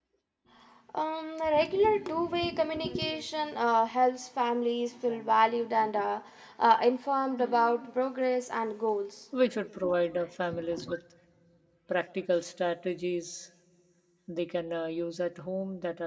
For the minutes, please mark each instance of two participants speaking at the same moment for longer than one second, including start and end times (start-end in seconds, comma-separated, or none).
none